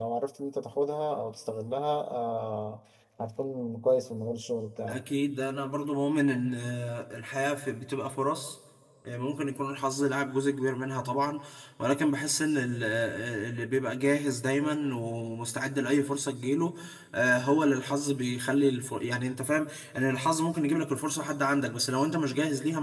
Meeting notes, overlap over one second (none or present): none